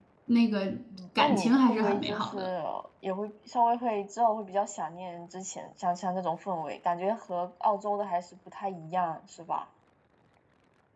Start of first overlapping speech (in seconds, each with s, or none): 1.2 s